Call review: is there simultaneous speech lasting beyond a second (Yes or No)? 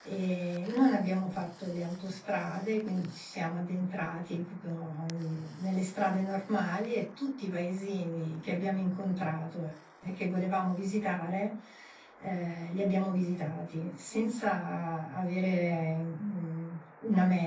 No